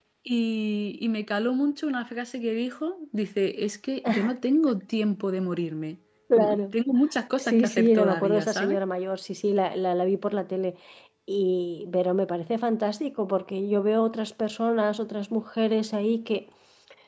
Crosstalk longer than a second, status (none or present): present